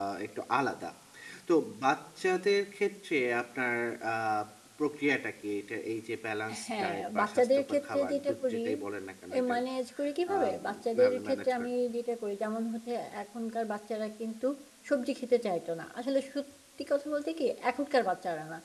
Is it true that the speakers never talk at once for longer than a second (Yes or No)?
No